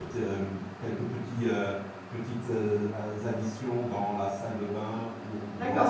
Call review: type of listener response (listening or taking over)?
taking over